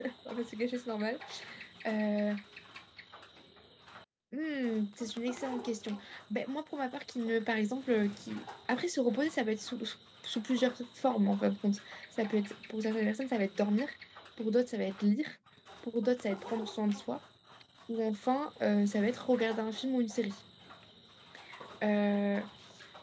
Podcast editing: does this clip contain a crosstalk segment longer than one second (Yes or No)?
No